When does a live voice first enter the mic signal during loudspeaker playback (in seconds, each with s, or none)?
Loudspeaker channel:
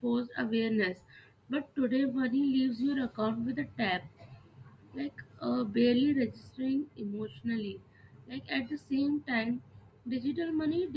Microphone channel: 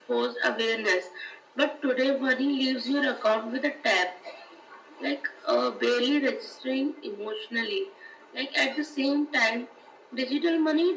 none